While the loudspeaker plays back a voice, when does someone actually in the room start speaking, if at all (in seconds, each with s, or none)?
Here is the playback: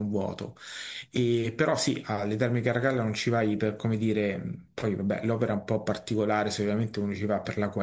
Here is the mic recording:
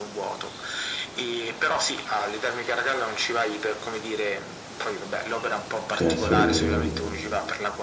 5.8 s